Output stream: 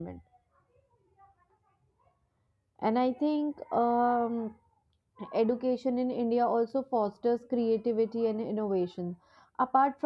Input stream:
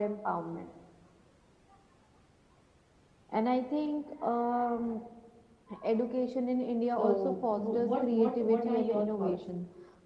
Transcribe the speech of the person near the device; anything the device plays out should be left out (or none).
so w- what what what are your thoughts